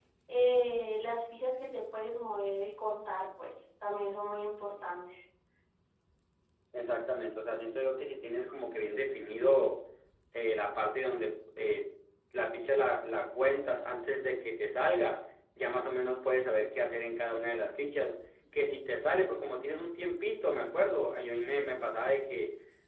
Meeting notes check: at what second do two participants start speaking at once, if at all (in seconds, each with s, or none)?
none